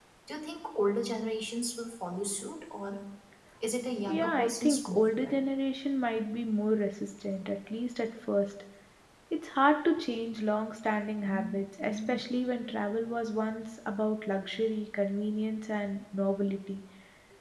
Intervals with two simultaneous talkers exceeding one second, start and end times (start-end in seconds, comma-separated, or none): 4.1-5.4